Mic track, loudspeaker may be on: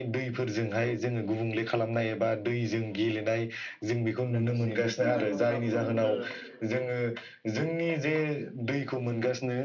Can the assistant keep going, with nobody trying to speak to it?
No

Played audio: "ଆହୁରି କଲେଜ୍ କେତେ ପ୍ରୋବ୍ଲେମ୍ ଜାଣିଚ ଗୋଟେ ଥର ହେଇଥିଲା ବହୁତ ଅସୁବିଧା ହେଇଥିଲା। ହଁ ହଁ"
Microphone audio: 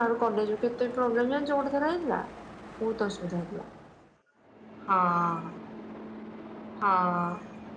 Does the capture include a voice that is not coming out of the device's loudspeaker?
No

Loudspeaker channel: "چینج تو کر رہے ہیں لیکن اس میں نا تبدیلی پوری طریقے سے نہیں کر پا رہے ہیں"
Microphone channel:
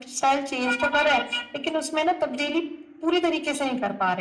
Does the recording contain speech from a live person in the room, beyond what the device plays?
No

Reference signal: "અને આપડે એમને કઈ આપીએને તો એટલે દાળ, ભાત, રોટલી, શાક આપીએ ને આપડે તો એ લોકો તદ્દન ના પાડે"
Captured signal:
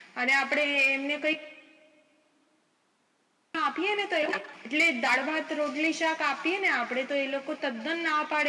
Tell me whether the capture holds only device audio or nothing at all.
Yes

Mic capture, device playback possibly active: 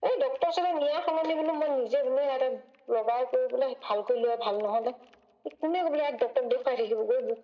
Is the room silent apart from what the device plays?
Yes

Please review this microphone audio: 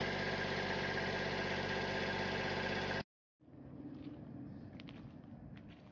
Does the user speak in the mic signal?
No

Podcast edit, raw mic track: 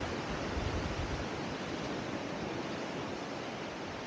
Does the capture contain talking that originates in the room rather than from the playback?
No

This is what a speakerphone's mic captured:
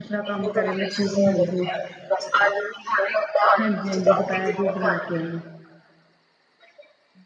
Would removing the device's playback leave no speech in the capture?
No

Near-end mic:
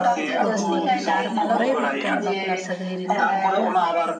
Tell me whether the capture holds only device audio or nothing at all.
No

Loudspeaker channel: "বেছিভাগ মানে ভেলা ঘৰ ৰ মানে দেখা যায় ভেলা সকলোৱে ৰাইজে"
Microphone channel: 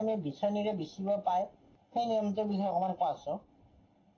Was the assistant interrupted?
Yes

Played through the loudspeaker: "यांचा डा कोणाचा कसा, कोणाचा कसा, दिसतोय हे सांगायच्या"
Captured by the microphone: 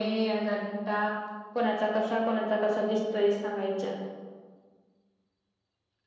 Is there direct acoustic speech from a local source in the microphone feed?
No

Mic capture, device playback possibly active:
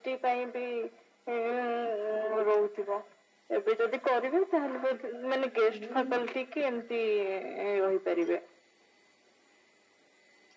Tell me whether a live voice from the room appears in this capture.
Yes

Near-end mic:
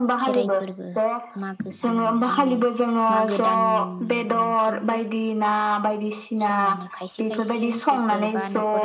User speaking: Yes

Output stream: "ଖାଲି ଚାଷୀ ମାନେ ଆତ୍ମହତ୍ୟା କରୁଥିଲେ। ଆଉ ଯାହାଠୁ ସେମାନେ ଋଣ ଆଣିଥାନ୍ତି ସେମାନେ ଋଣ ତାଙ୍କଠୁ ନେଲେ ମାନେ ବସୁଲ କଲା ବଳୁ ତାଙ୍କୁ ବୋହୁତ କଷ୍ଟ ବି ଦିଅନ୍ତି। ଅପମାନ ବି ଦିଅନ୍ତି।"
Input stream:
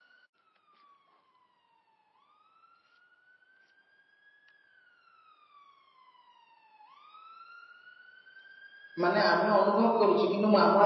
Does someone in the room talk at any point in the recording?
Yes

